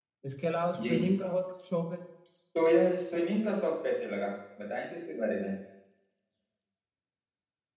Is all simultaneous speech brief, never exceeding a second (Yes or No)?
Yes